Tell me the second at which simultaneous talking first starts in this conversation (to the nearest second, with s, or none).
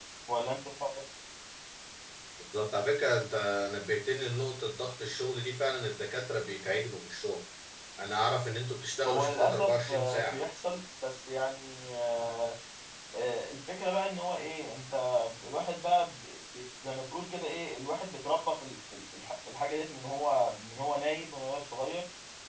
9 s